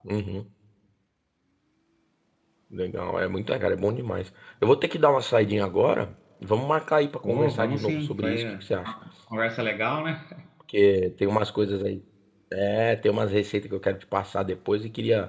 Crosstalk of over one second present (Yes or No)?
Yes